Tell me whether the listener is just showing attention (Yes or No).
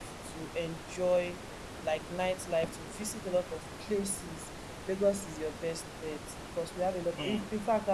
Yes